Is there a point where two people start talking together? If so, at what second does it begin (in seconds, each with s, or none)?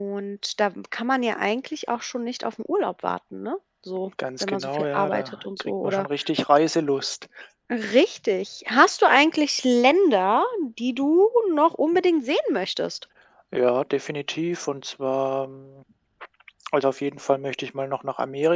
4.4 s